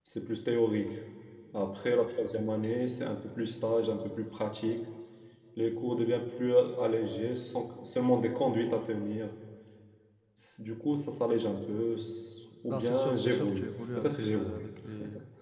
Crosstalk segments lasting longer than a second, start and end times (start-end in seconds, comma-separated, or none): 12.7-14.7